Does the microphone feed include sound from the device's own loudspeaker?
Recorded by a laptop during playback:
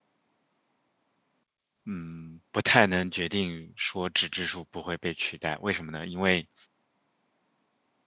No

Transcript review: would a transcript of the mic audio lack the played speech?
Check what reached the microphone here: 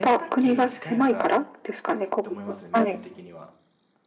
No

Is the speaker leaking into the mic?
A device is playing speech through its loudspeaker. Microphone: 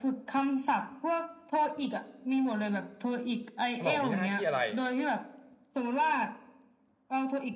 Yes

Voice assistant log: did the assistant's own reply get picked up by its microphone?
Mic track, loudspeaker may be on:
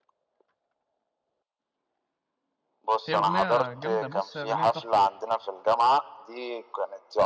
Yes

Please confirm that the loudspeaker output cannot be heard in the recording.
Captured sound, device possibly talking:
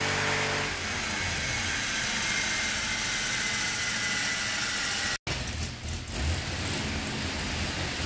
Yes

